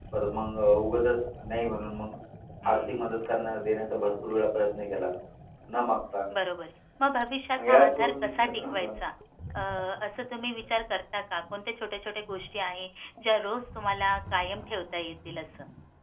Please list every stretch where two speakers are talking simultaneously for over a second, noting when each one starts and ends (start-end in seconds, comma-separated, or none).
7.6-9.0